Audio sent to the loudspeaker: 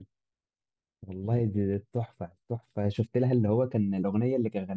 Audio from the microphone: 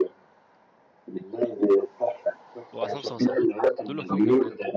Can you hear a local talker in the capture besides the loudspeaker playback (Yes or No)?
Yes